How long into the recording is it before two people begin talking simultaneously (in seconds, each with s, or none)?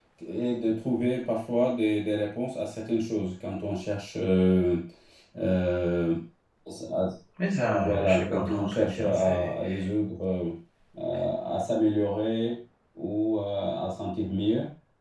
7.7 s